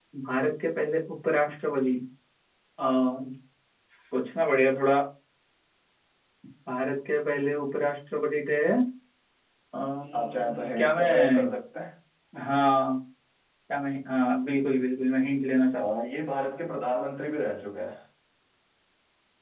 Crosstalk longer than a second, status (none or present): present